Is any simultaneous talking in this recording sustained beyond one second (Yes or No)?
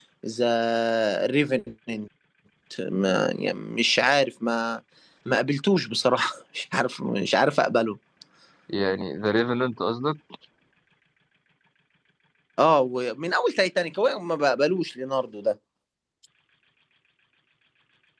No